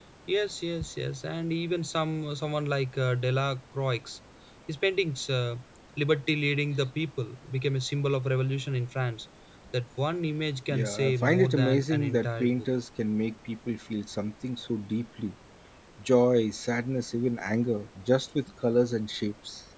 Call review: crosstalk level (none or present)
present